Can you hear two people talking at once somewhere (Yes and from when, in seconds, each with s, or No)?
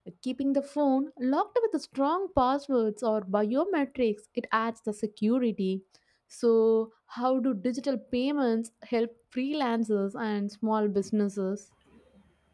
No